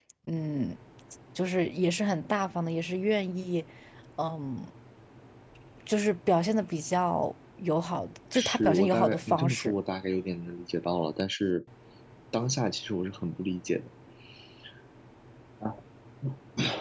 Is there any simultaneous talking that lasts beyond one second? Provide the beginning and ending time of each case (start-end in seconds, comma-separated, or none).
8.3-9.7